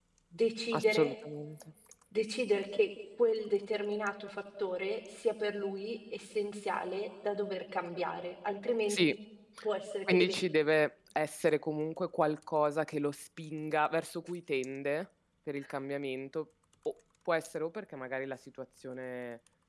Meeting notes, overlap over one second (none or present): none